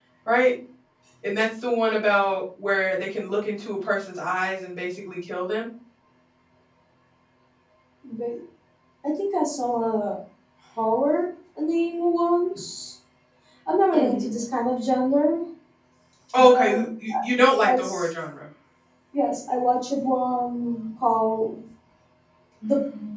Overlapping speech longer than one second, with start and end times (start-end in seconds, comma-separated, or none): none